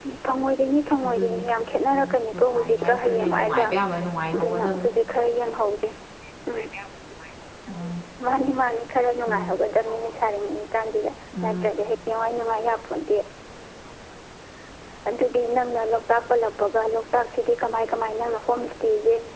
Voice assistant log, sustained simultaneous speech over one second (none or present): present